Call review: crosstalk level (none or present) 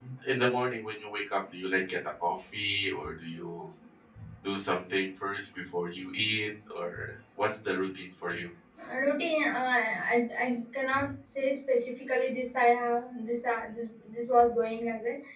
none